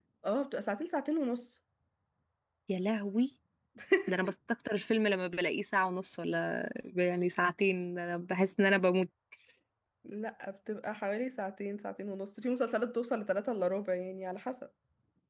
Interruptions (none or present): none